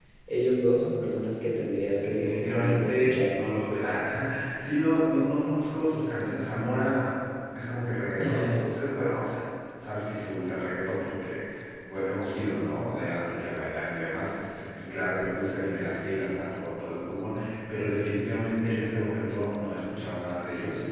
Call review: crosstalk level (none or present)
present